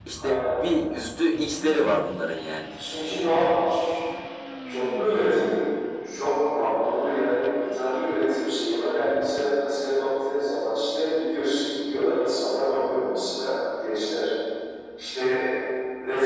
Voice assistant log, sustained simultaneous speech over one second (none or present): none